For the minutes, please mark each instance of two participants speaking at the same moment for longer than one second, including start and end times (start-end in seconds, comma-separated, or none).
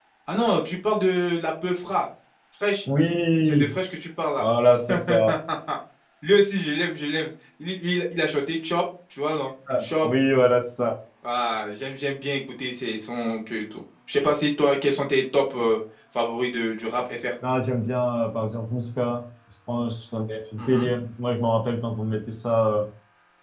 none